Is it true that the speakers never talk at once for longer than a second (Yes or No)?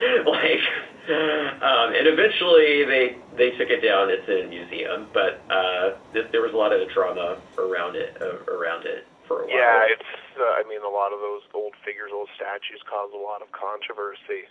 Yes